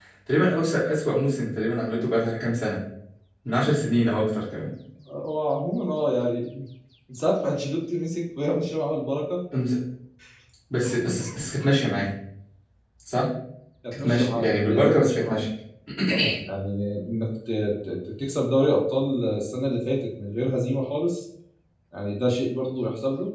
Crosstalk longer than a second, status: present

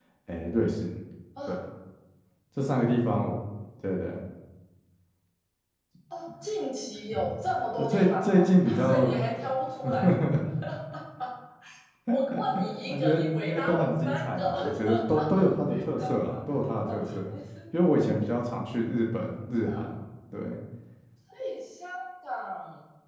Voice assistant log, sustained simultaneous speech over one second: present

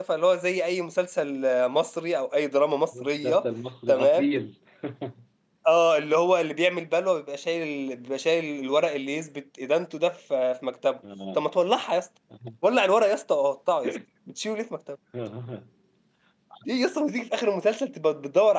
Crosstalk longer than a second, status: none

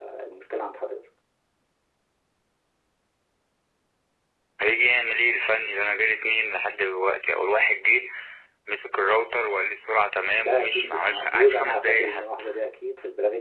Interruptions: present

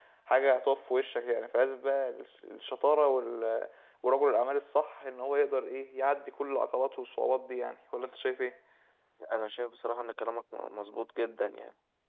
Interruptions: none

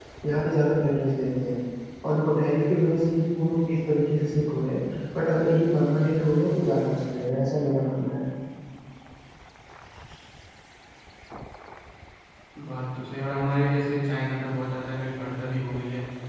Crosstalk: none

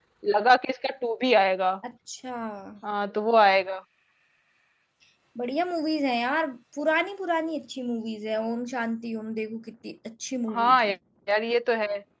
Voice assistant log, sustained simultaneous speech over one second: none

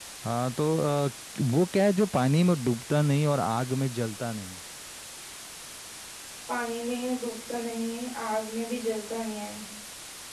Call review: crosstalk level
none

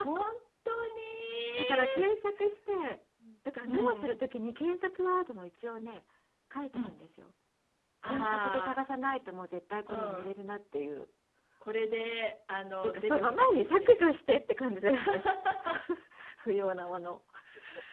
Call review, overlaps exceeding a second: present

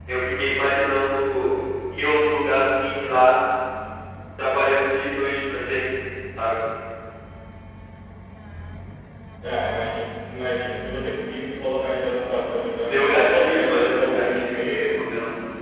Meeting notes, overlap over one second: present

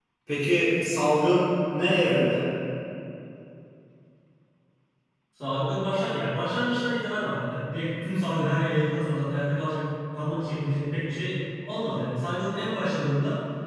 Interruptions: none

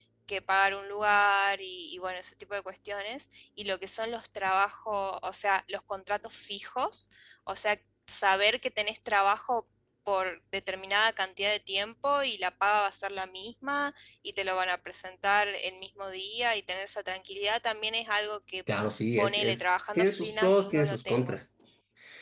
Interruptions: present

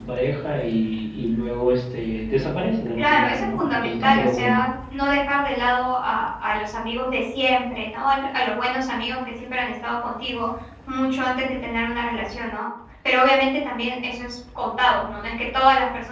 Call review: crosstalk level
present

